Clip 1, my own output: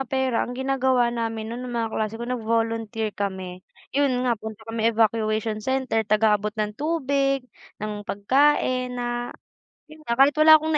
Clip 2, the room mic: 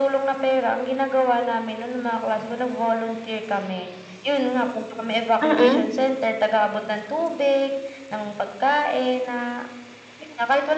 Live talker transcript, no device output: Mm.

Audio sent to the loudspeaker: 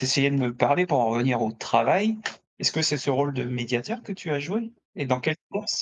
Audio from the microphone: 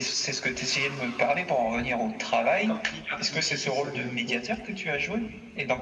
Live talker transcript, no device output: et quand tu dis «quartier difficile», ça veut dire quoi

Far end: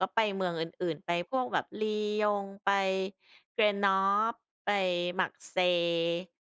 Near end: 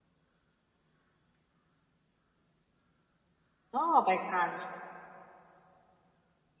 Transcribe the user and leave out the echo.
อ๋อ ไป Cannes

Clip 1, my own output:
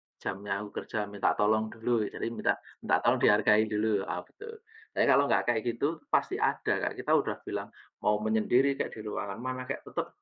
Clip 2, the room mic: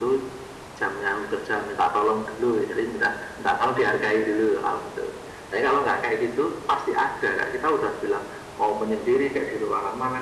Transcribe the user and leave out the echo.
none

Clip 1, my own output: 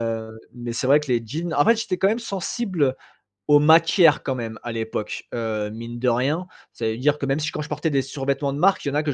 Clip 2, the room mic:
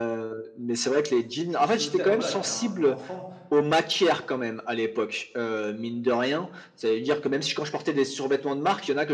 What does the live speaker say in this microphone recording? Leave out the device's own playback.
je sautais enfin voilà, j'étais un enfant.

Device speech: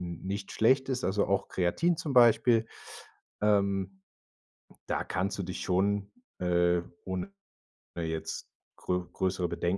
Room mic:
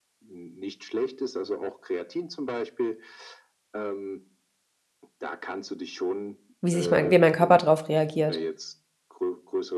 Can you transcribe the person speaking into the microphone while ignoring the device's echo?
wie sich mein wie mein Körper drauf reagiert

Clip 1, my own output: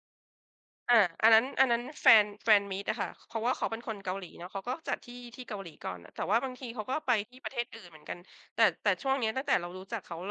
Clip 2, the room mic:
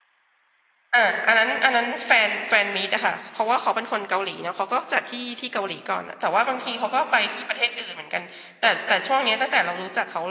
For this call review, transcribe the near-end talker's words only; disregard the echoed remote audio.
none

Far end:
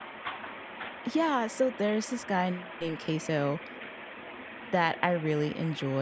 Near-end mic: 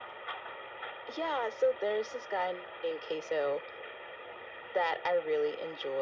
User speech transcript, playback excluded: none

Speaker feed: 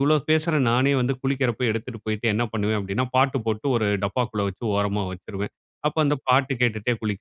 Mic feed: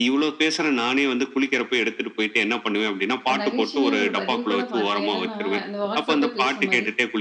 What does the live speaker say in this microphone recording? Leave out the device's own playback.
ஒரு நகைச்சுவையா ஒரு பதிவு கூட பார்த்தேன். என்னன்னா? இந்த வாட்ஸ்அப்பே பேசுற மாரி

